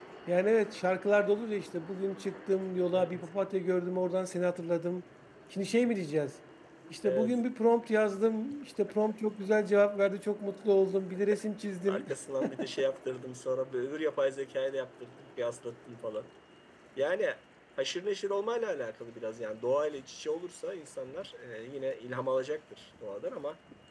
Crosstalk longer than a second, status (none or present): none